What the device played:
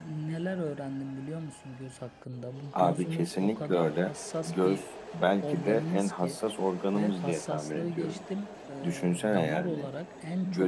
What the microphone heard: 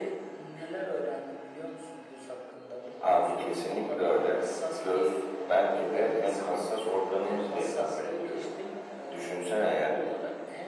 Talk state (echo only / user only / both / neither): echo only